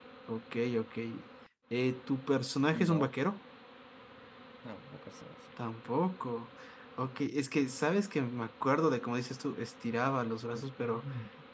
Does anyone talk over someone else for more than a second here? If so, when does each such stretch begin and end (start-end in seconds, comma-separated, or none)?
none